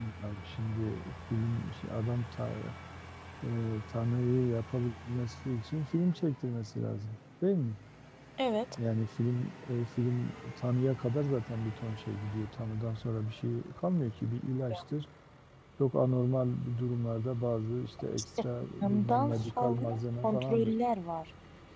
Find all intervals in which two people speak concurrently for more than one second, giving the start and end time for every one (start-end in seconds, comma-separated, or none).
18.8-20.7